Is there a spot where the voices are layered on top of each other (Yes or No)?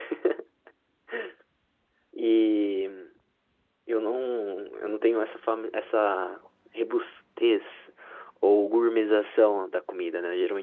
No